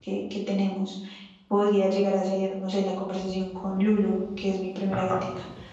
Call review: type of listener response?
listening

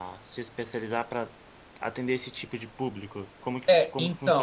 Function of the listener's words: taking over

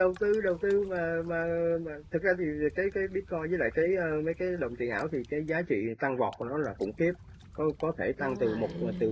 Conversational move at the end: listening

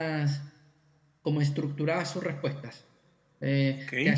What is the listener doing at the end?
listening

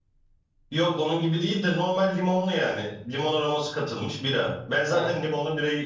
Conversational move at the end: listening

